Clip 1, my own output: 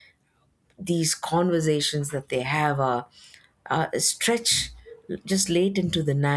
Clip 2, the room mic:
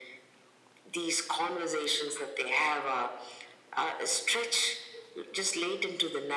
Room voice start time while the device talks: none

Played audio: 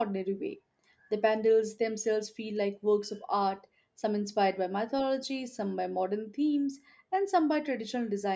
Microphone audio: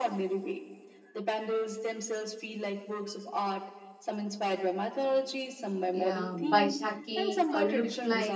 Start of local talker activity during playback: 5.9 s

